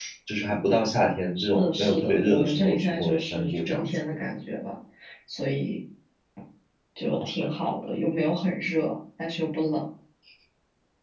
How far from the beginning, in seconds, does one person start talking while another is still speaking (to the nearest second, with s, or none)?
1 s